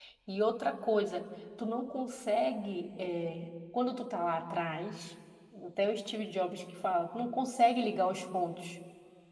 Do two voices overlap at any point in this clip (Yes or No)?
No